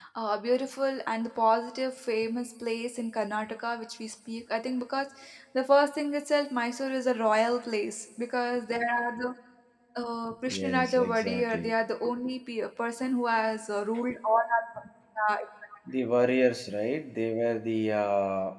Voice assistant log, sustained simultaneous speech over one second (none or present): present